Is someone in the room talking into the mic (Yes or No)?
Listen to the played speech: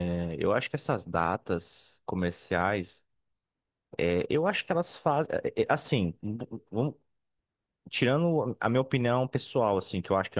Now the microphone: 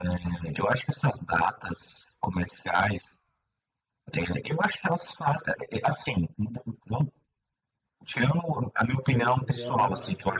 Yes